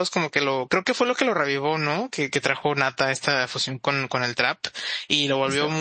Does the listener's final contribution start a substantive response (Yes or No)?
No